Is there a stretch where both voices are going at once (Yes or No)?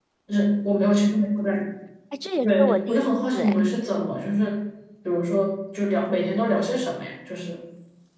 Yes